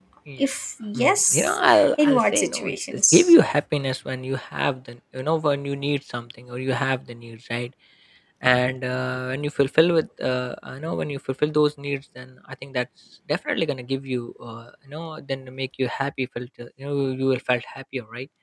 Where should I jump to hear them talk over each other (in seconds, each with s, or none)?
1.0 s